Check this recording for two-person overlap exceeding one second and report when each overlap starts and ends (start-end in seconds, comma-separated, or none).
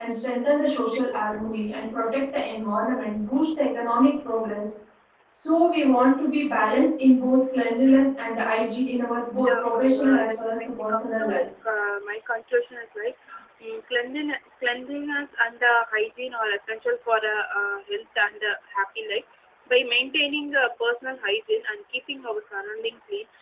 9.5-11.4